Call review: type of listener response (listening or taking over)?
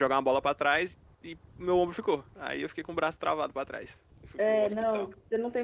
taking over